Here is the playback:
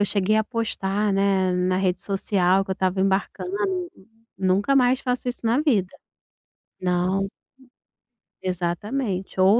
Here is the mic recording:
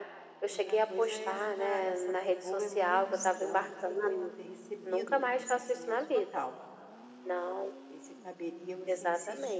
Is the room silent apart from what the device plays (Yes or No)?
No